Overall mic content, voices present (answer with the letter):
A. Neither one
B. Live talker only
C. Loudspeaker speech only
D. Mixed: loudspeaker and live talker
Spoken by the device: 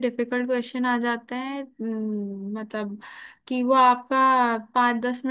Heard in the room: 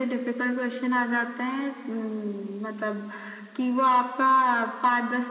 C